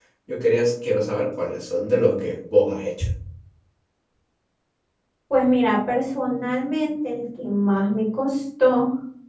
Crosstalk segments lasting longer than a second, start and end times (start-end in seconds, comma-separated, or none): none